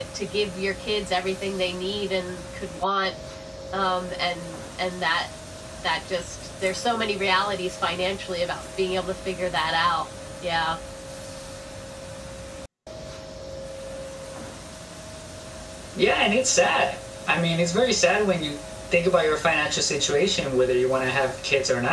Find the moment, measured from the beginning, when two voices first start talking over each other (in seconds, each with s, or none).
none